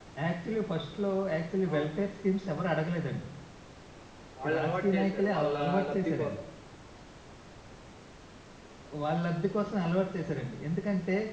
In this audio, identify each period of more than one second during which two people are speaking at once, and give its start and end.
4.5-6.3

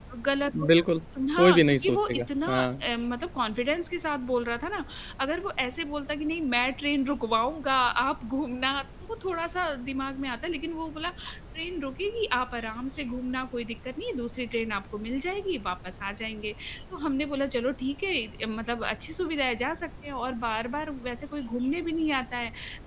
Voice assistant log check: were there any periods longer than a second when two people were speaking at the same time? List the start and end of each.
1.4-2.7

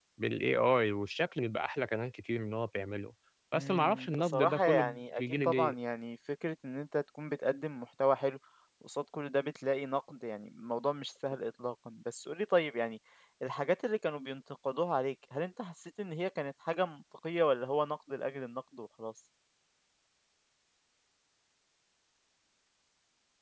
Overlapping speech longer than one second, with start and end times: 3.5-5.7

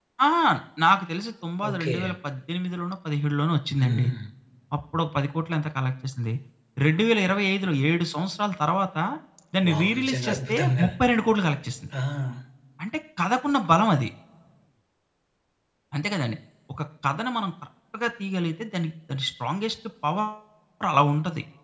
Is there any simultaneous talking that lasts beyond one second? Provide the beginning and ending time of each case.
9.7-10.9

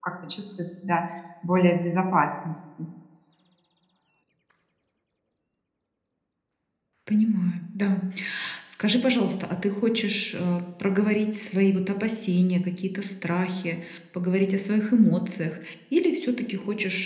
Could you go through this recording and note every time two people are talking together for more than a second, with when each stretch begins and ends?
none

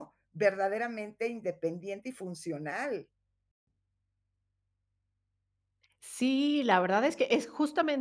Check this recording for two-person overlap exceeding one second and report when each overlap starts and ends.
none

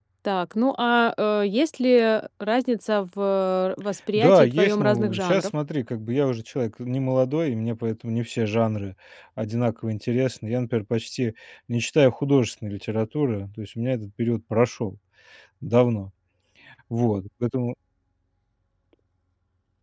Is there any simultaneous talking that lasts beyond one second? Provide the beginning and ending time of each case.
4.2-5.5

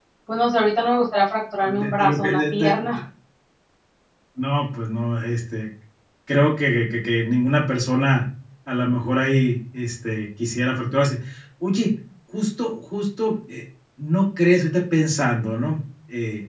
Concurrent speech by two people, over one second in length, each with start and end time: 1.6-3.0

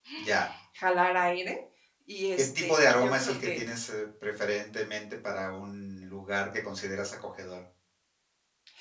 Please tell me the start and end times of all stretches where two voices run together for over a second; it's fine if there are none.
2.4-3.6

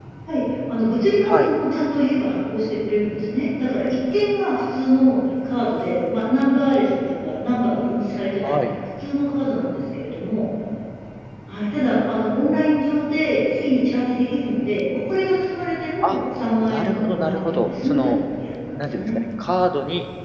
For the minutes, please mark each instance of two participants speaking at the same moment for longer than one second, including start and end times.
16.6-18.1

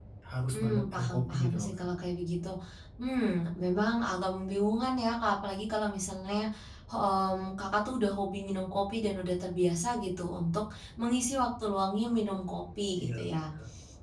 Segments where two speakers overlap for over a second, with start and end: 0.5-1.8

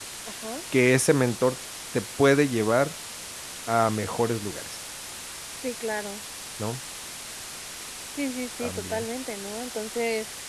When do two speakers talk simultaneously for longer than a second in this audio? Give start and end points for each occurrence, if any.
none

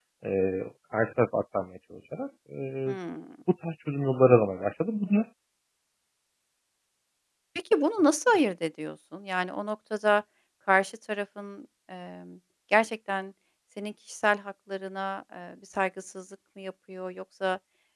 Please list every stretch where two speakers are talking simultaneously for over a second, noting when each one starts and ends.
none

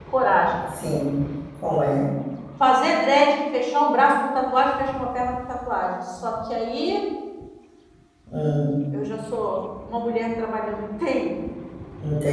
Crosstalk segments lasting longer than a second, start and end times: none

